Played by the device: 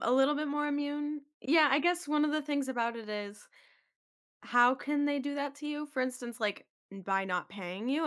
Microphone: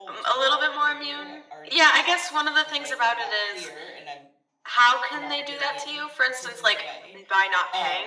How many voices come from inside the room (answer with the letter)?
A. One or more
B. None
A